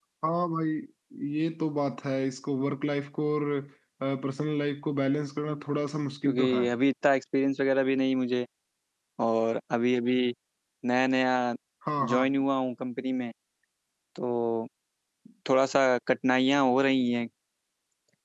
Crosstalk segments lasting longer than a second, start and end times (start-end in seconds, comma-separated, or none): none